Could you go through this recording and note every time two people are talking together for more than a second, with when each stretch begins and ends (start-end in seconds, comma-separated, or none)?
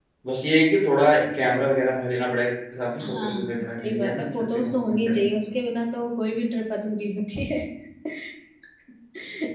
3.0-5.3